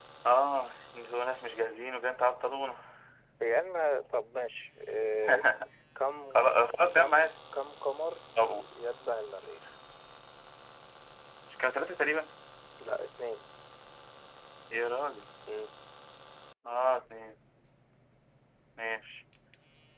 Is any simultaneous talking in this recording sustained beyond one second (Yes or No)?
No